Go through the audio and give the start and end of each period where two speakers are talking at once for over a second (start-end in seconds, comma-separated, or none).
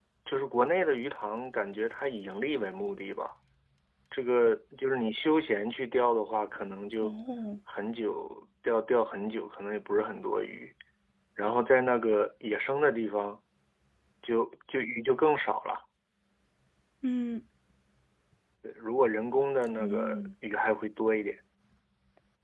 none